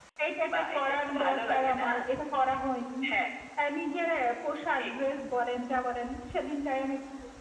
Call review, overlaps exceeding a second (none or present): present